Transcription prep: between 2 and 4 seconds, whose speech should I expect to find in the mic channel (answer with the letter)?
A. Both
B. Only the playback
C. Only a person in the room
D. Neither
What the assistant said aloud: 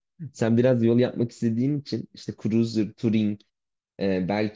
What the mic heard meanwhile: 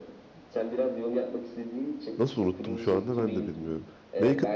A